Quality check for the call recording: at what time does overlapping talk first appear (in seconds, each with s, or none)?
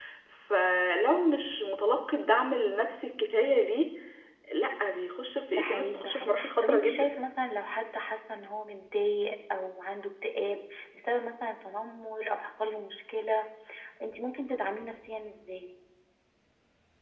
5.5 s